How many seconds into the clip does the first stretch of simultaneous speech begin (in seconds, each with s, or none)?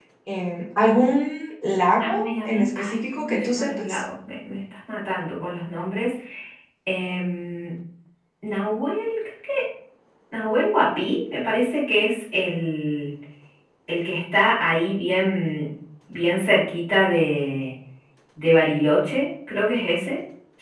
2.0 s